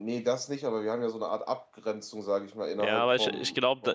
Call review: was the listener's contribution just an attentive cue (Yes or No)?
No